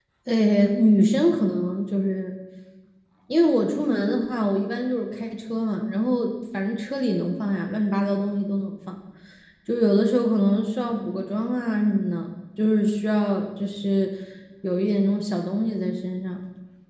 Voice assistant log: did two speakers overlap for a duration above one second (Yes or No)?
No